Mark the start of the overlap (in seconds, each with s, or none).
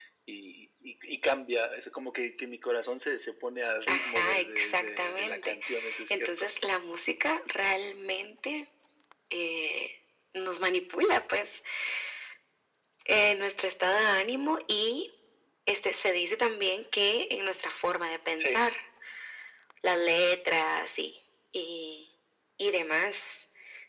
3.9 s